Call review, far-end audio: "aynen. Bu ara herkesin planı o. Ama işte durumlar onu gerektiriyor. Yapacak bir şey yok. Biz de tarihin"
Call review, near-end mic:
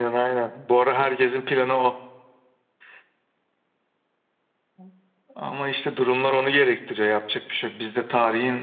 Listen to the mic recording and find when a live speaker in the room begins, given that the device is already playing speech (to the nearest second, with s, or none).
none